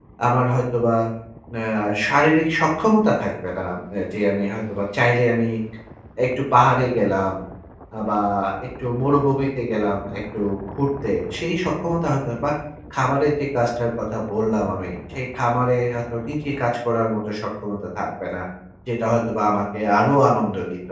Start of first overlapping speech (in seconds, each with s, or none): none